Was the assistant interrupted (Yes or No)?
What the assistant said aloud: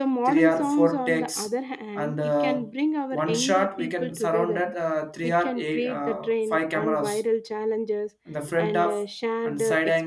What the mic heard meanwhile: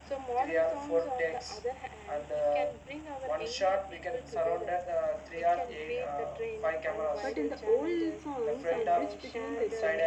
Yes